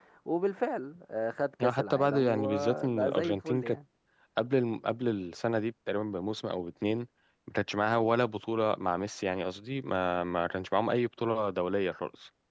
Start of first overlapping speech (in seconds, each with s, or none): 1.6 s